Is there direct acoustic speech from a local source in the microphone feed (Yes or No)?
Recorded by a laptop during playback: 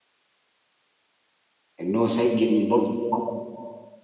Yes